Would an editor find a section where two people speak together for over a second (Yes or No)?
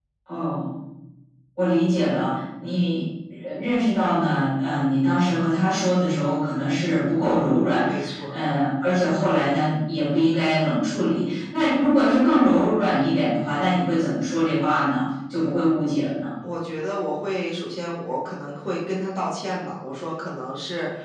No